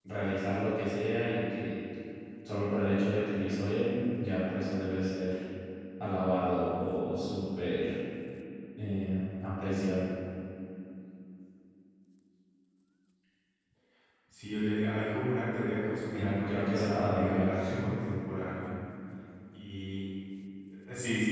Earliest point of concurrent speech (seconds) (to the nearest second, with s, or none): 16 s